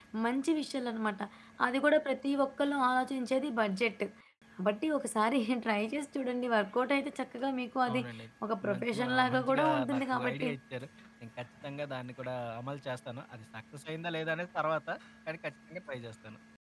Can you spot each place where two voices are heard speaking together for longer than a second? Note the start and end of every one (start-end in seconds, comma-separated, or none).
8.7-10.5